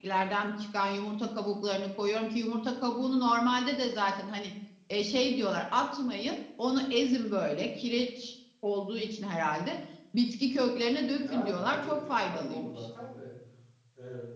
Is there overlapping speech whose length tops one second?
Yes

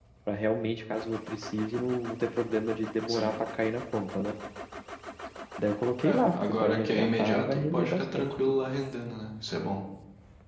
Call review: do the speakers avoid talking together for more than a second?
No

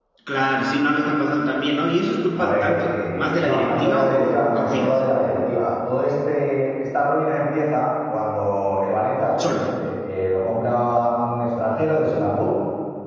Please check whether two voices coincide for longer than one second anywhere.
Yes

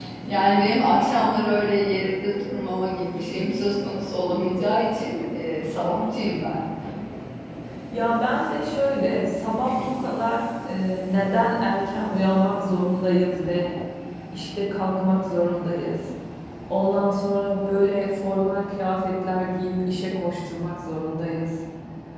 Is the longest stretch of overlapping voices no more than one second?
Yes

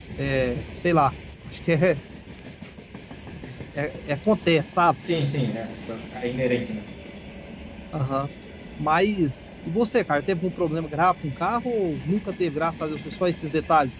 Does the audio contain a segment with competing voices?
No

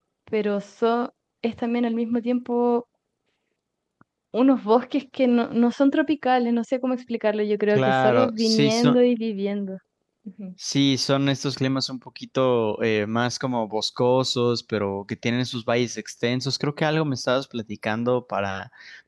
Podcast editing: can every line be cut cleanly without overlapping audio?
No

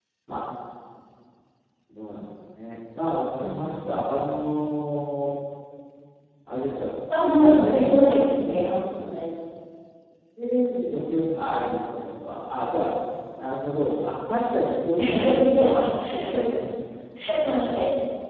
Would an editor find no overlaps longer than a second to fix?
No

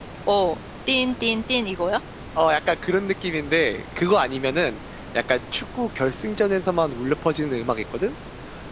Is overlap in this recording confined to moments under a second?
Yes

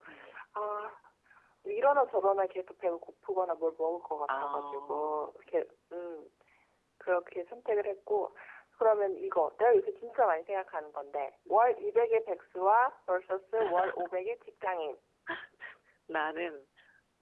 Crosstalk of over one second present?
Yes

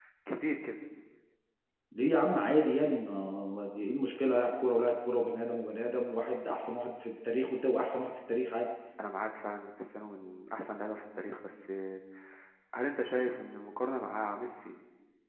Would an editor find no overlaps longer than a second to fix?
Yes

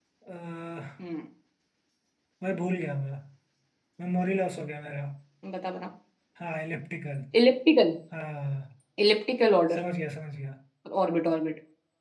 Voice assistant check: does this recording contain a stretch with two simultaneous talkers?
No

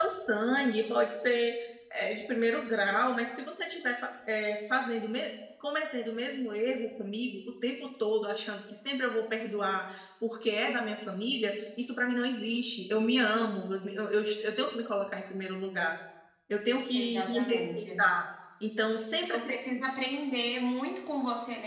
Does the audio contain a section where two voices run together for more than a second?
Yes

